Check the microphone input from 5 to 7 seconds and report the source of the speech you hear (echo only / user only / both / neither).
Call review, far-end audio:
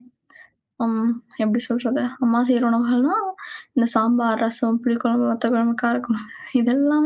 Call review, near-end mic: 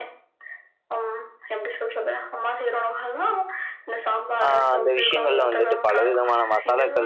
both